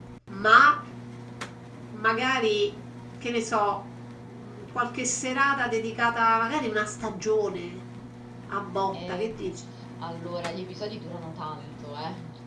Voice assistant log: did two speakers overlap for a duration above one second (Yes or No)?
No